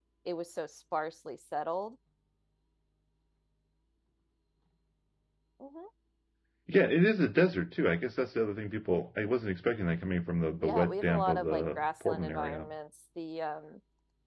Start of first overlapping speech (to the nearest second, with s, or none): 11 s